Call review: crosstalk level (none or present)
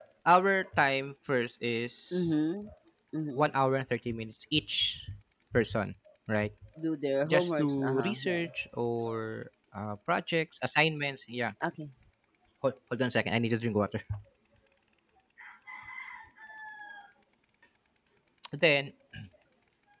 present